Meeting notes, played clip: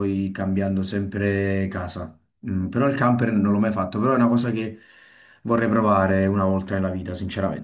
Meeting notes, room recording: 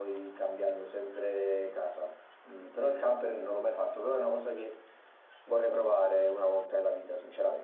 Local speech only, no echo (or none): none